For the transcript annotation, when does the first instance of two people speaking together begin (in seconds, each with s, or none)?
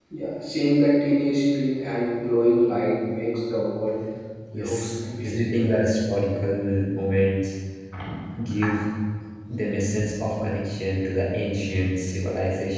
4.5 s